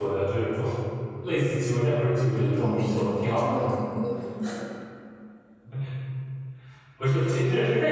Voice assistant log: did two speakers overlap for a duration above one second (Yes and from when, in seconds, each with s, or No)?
Yes, from 2.4 s